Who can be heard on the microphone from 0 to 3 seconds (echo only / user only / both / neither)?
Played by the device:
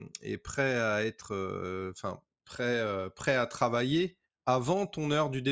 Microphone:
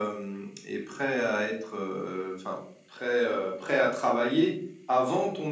echo only